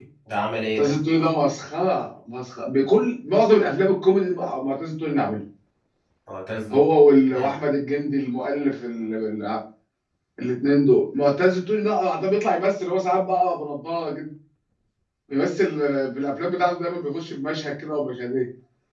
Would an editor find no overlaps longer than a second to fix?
Yes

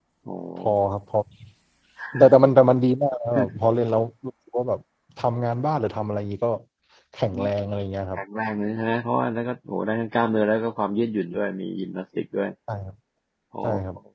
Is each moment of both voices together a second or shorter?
Yes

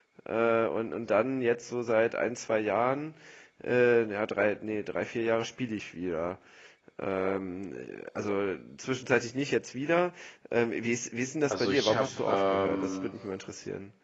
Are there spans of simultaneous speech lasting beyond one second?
Yes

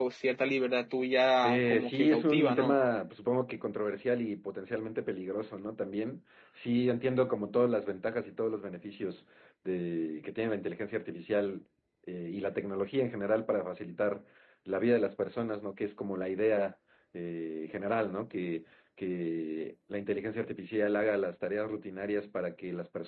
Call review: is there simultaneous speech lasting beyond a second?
Yes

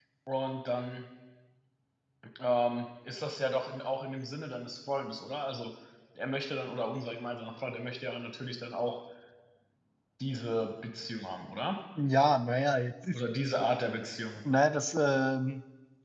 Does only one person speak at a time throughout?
Yes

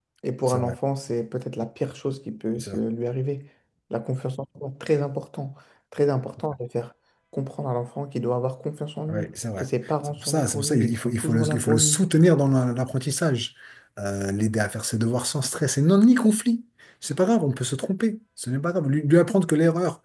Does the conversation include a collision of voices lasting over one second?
Yes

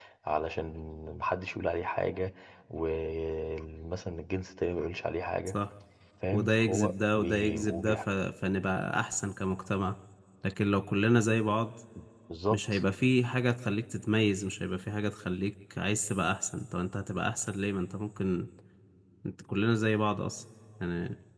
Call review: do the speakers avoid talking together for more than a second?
No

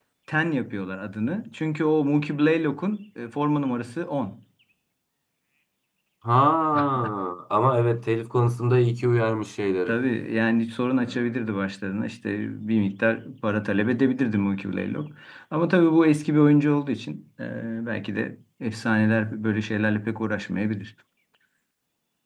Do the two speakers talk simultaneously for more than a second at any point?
No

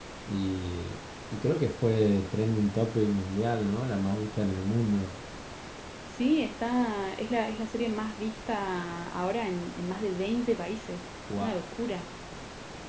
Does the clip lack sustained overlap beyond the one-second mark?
Yes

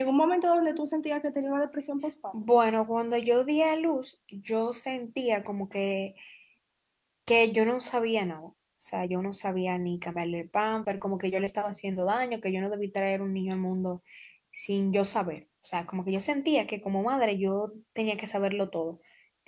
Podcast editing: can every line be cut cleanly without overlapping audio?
Yes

